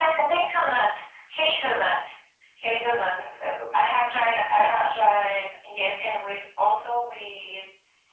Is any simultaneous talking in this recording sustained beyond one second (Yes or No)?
Yes